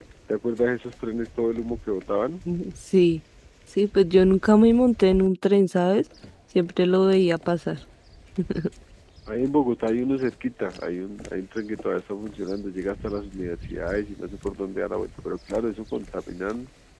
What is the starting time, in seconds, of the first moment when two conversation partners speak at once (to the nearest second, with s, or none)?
none